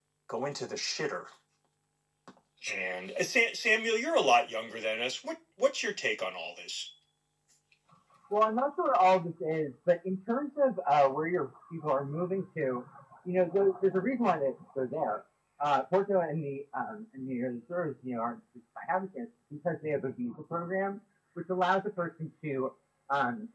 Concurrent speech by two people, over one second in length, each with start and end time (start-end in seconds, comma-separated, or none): none